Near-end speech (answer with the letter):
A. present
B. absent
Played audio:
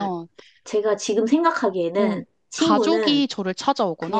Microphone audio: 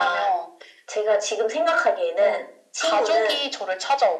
B